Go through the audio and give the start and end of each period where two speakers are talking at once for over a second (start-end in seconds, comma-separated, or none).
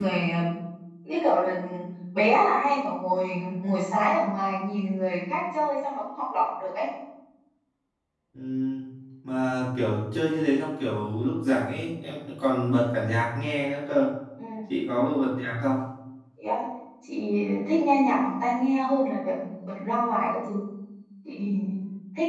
none